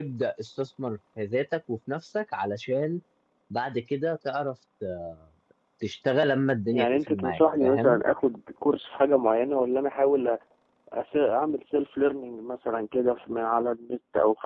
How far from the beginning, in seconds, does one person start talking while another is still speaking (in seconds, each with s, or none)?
6.7 s